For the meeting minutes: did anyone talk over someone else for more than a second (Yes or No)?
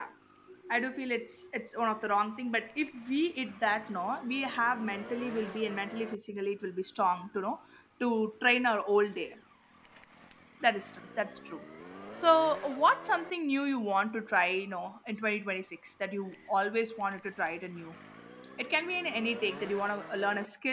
No